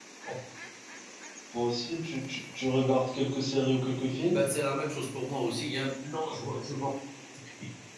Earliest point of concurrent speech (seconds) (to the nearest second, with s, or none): none